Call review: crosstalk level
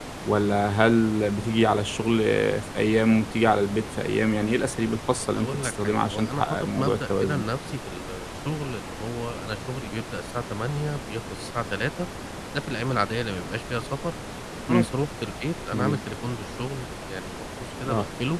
present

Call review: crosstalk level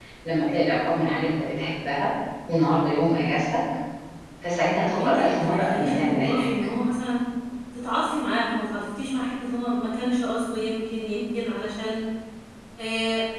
present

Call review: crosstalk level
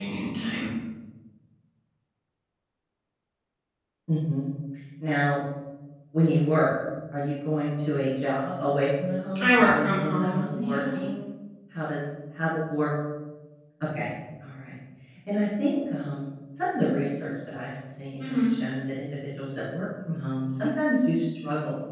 present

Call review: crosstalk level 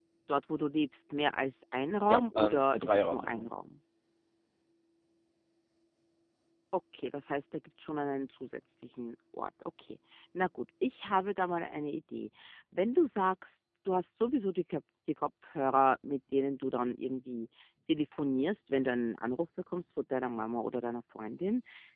present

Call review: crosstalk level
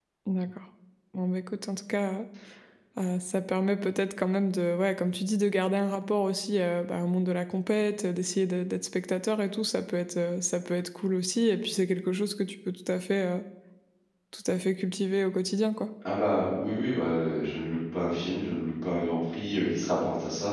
none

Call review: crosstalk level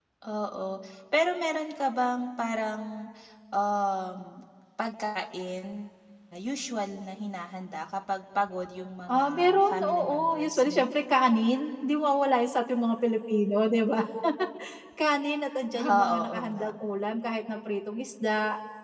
present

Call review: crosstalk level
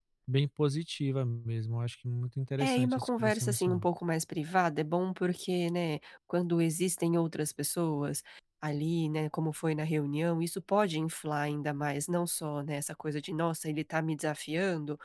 present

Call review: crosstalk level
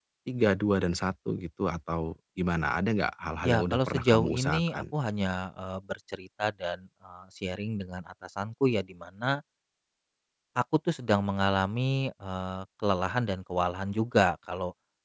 present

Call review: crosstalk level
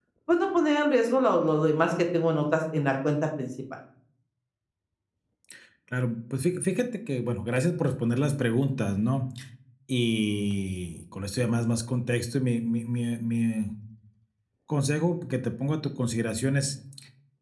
none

